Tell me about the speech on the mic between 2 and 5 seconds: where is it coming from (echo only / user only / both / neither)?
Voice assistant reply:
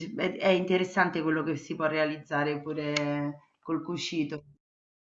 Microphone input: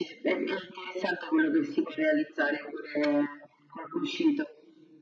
echo only